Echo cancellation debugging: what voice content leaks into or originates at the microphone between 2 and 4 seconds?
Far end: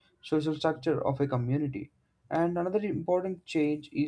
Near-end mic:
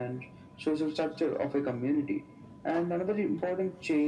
echo only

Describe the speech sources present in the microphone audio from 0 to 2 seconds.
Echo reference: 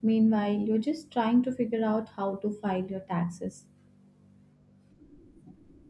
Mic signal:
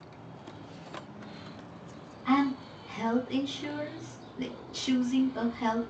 neither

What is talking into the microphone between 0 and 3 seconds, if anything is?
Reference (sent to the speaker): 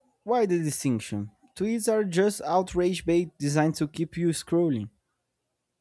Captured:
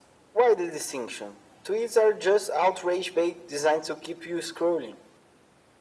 echo only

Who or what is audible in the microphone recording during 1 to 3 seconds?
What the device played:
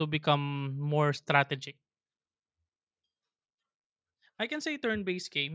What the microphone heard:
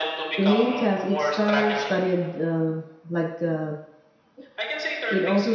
both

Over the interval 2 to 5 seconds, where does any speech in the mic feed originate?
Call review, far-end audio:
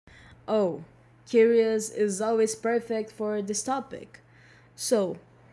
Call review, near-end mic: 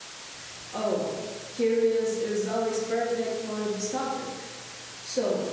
echo only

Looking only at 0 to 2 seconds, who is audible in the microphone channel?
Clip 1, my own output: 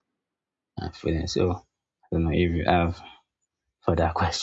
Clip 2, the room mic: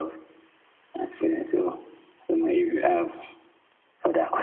echo only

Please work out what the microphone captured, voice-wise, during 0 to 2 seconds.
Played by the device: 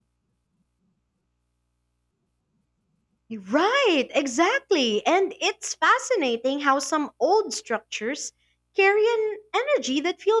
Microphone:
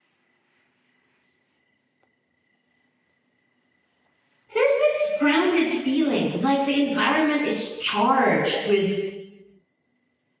neither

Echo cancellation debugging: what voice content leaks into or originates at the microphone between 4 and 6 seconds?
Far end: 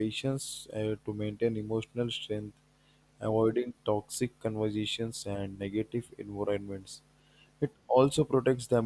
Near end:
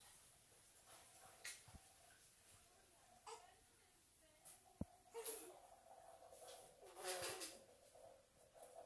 neither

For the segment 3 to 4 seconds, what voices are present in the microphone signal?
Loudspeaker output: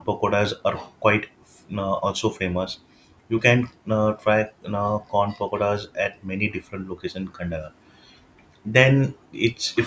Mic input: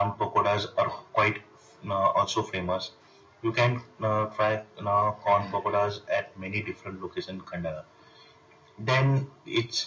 echo only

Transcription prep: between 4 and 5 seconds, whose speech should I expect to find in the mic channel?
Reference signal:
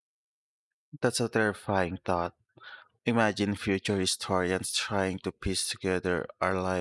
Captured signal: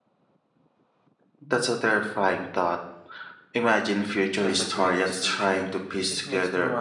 both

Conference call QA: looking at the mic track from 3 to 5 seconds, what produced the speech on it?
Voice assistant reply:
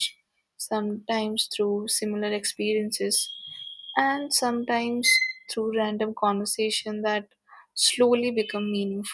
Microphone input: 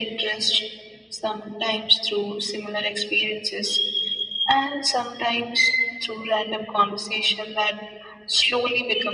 echo only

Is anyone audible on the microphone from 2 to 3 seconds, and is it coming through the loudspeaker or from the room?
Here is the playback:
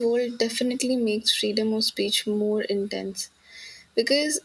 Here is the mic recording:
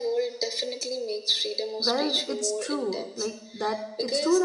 both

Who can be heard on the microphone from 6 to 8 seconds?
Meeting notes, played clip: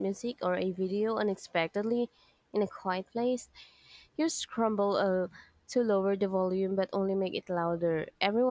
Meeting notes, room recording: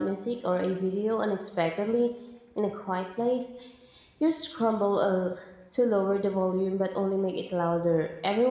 echo only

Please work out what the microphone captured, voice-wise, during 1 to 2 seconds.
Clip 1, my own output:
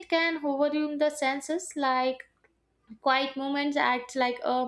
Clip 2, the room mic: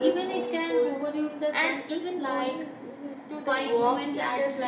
both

